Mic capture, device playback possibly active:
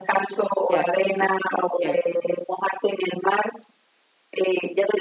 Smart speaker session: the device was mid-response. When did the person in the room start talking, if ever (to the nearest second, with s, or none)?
1 s